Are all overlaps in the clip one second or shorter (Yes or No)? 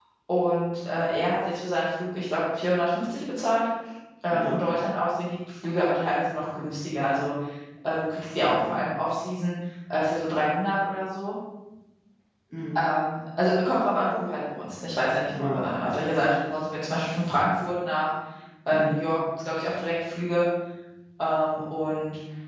Yes